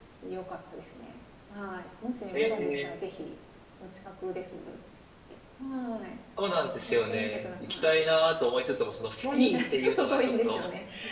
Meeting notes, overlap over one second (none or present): present